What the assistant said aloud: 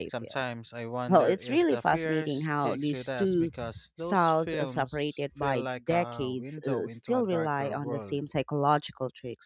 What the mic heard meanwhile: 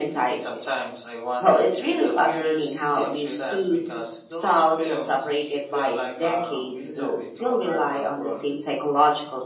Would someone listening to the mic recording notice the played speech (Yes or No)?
Yes